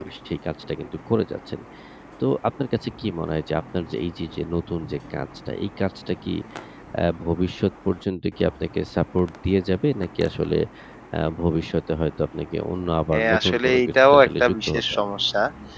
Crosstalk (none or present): present